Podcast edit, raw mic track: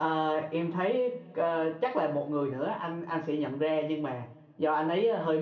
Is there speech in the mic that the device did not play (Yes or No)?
Yes